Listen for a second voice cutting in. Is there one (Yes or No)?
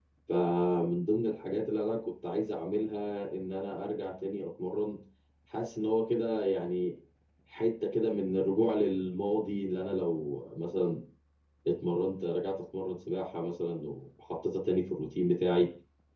No